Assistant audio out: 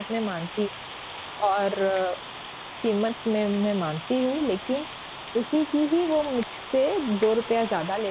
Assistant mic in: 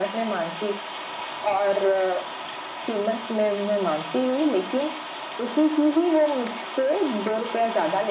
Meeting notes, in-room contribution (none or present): none